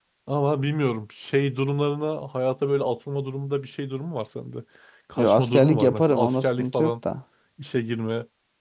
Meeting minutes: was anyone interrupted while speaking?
Yes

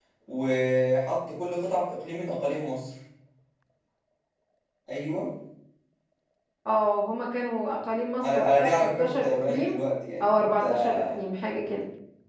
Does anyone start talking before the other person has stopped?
Yes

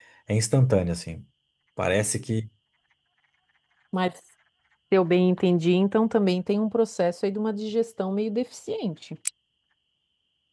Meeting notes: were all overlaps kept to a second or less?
Yes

